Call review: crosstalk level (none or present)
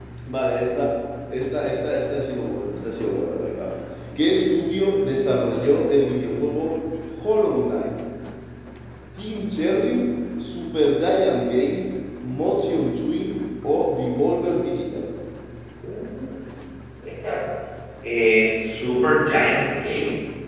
none